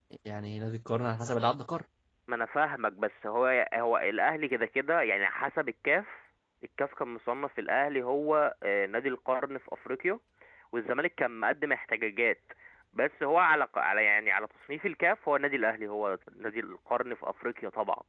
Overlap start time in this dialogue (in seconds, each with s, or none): none